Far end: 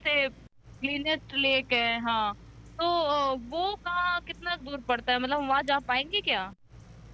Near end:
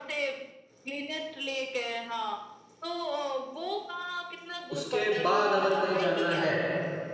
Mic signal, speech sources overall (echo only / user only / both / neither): both